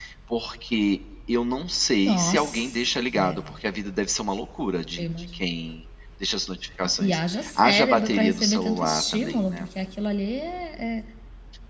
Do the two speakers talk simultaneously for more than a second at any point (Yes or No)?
Yes